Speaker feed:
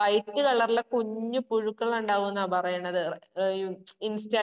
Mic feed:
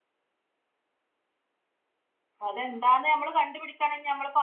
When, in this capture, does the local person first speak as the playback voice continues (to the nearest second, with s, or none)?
2 s